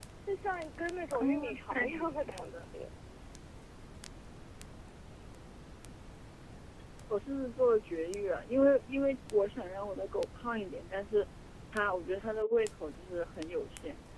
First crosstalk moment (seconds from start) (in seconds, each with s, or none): 1.1 s